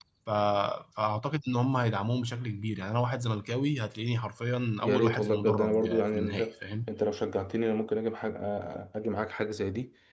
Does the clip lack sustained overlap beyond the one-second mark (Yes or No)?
No